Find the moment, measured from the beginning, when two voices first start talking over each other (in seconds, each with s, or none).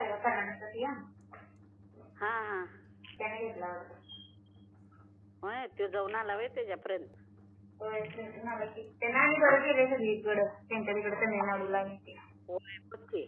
none